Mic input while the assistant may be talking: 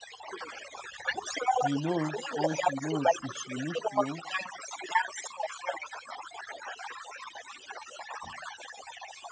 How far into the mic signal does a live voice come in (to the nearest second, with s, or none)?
2 s